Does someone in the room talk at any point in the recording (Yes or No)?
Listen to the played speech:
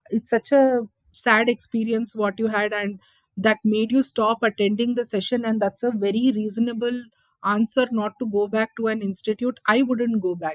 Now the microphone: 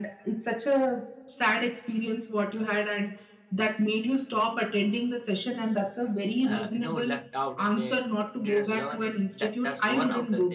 Yes